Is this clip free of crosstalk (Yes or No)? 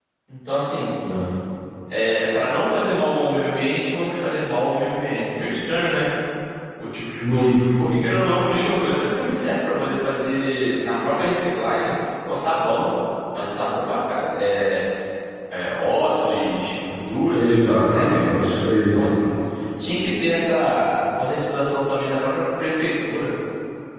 No